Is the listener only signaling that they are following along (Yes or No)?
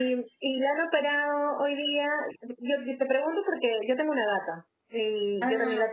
Yes